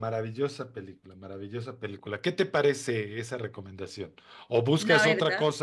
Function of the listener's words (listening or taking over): listening